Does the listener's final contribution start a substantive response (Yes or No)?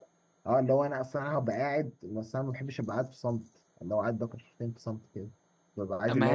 No